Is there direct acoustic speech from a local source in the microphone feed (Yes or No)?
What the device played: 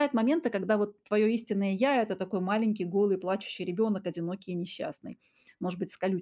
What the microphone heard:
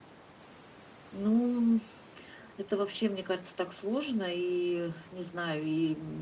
Yes